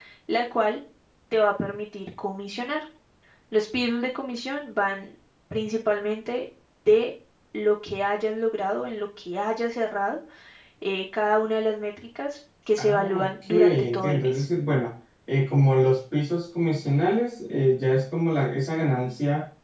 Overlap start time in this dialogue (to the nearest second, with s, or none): 13 s